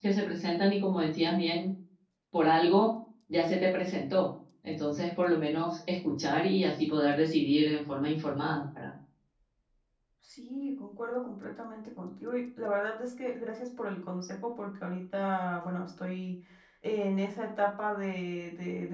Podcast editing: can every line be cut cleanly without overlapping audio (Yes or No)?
Yes